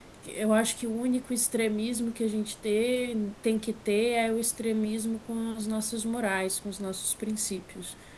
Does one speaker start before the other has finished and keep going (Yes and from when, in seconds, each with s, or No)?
No